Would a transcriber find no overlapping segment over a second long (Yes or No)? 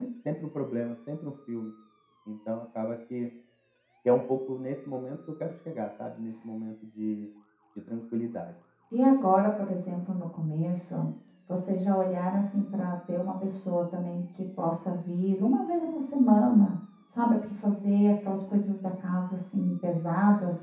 Yes